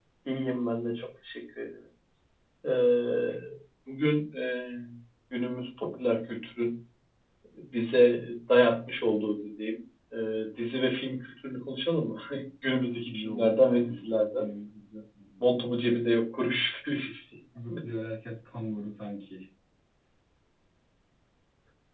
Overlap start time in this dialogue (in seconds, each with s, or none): 13.0 s